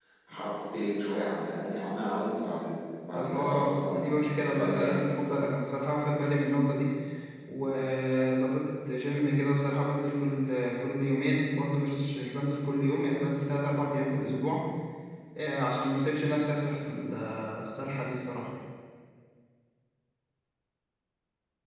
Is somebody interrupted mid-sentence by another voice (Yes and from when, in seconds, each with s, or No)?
Yes, from 3.1 s